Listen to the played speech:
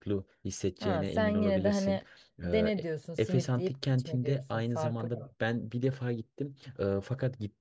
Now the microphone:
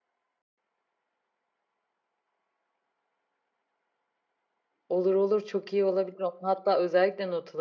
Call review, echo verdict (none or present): none